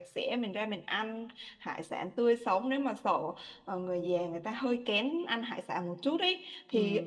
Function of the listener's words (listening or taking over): listening